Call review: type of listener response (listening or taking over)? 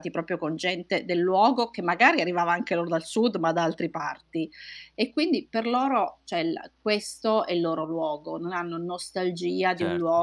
listening